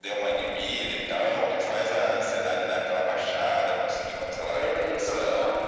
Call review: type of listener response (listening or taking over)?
taking over